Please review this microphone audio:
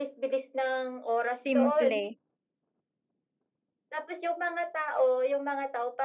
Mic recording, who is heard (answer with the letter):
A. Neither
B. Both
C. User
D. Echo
B